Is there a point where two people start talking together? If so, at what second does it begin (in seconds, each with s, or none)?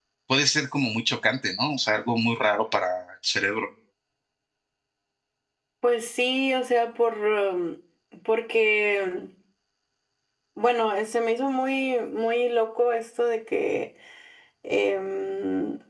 none